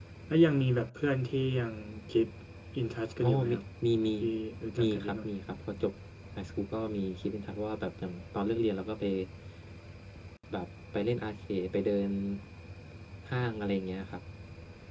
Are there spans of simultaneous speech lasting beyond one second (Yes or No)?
No